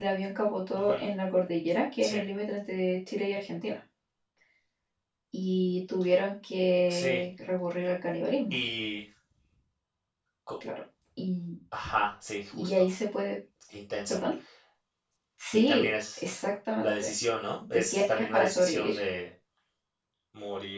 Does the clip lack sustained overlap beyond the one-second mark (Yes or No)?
No